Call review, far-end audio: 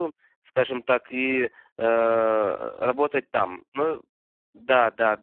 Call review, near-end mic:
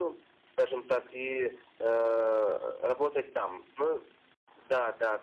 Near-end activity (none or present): none